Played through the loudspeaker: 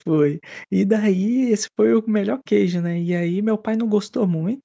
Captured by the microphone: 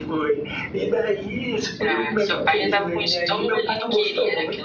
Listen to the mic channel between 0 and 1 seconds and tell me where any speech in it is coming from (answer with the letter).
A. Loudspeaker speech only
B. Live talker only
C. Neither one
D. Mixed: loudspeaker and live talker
A